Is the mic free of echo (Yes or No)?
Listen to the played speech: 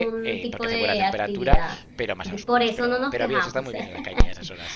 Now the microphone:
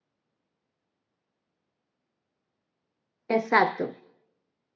Yes